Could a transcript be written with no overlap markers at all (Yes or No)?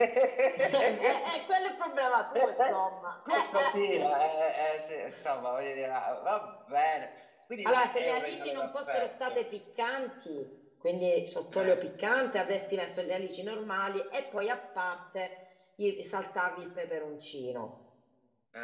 No